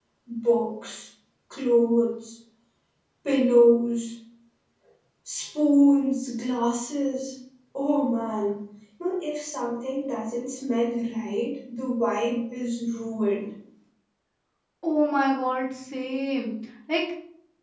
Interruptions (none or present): none